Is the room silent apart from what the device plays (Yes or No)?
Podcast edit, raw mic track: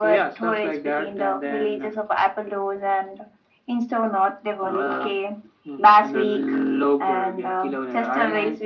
Yes